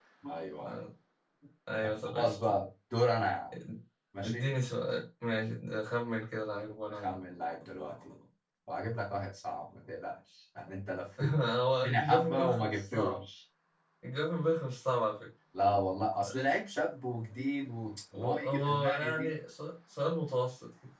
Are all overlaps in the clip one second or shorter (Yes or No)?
No